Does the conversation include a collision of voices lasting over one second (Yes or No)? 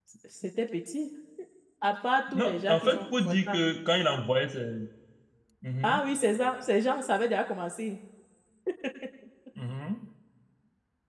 Yes